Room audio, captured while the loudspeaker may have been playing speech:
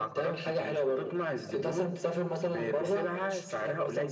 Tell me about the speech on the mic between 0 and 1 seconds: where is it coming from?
echo only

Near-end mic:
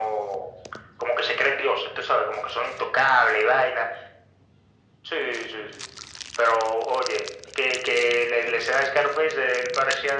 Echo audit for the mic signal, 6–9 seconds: echo only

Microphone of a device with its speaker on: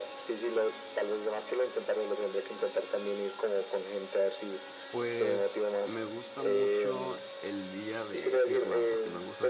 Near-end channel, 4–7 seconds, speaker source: both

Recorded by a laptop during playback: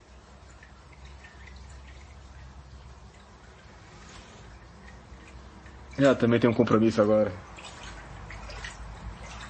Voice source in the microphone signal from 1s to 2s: neither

